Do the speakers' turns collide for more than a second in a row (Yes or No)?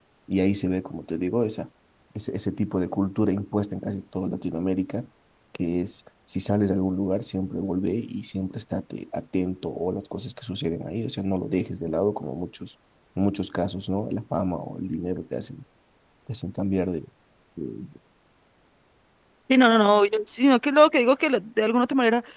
No